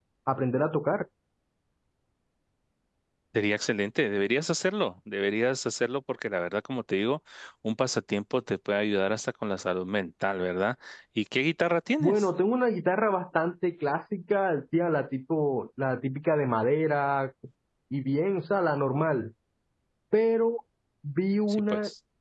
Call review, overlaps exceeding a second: none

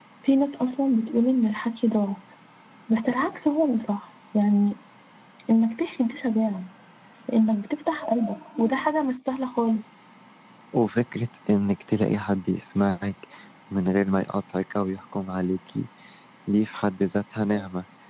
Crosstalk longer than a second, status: none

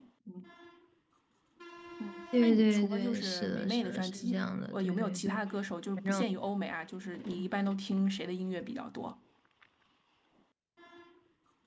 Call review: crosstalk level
present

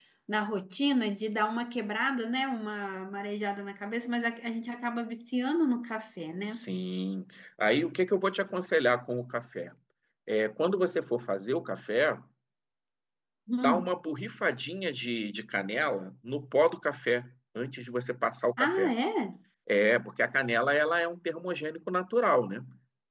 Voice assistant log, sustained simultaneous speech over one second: none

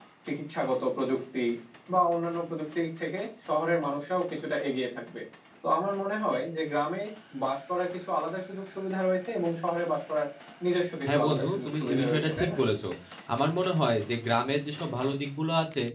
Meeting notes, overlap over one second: present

